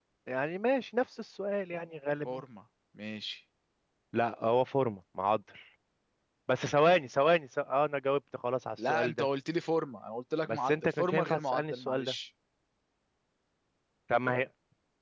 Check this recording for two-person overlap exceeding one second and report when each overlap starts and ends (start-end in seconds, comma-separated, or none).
10.5-12.1